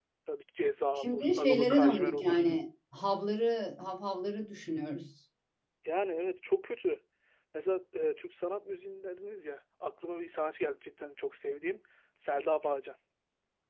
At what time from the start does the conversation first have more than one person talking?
1.0 s

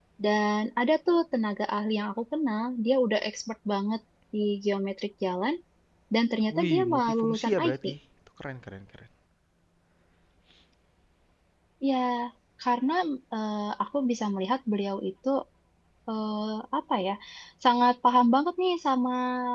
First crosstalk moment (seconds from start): 6.5 s

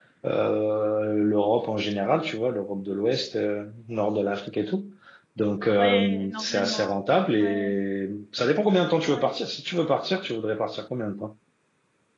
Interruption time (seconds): 5.8 s

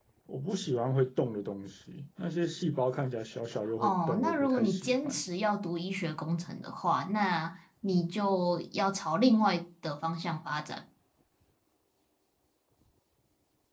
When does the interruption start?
3.8 s

